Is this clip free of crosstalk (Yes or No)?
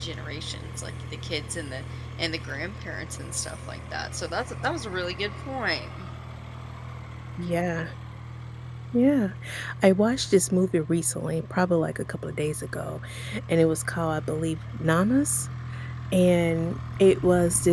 Yes